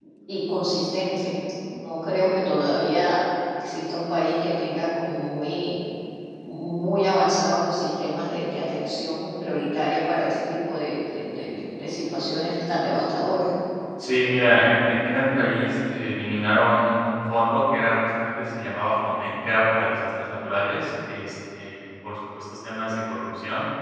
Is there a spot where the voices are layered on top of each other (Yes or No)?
No